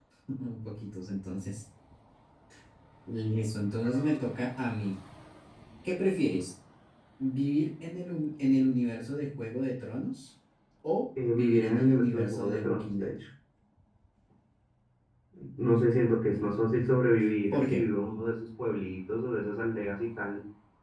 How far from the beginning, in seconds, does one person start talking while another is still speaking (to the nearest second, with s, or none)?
11 s